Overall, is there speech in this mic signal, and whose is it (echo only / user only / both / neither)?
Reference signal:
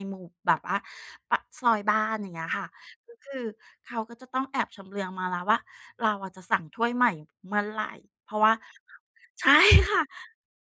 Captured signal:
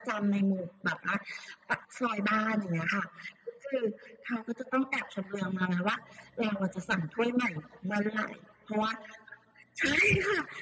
echo only